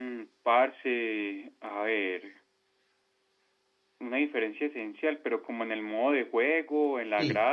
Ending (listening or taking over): taking over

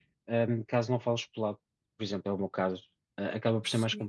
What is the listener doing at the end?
listening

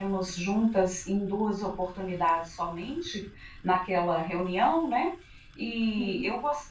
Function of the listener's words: listening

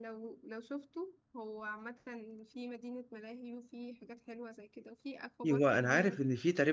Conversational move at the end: taking over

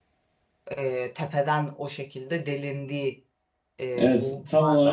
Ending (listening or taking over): taking over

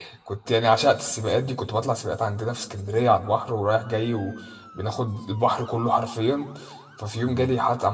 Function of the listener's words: listening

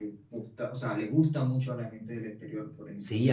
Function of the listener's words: taking over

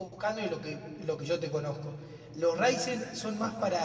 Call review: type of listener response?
listening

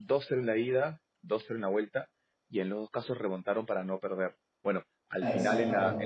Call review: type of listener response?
listening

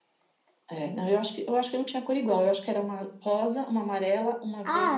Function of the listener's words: taking over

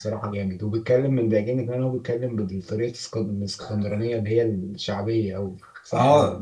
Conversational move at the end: taking over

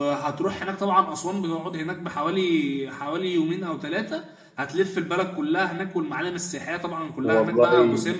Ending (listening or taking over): listening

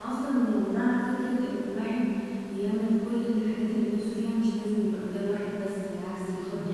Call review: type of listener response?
listening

